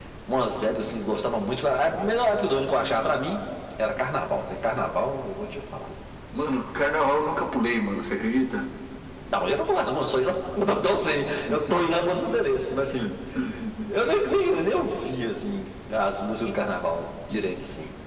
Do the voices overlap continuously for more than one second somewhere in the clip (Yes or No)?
No